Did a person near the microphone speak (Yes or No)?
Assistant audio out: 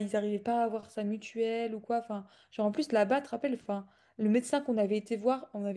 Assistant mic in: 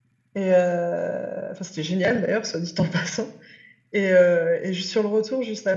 Yes